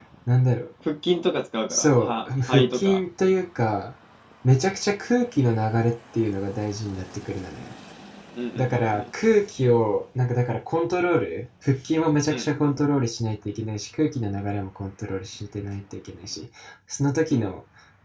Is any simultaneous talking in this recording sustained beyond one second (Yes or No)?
Yes